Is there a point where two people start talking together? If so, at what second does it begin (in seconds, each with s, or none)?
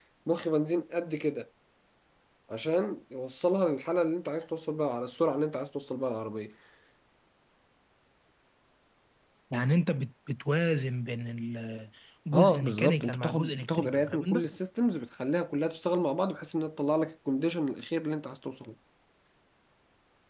12.3 s